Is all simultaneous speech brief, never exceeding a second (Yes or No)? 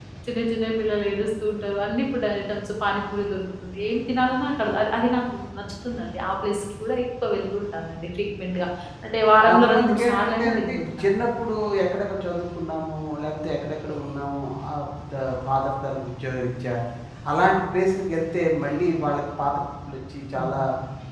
No